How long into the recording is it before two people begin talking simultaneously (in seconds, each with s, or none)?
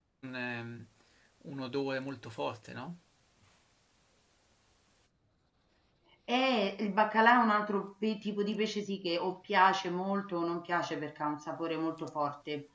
none